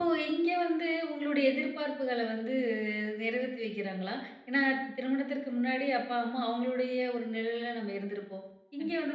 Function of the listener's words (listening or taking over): listening